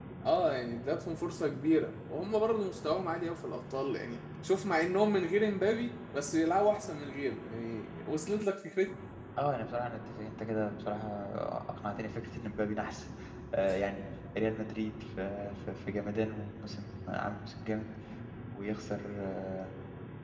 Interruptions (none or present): none